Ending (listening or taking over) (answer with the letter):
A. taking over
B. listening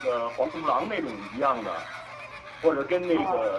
B